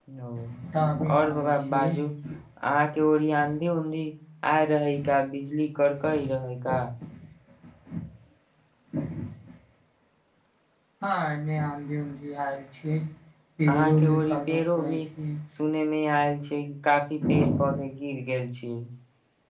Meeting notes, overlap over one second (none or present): present